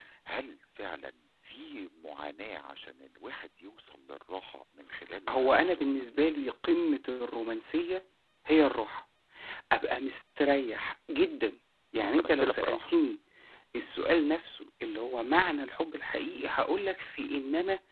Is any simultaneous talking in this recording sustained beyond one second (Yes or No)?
Yes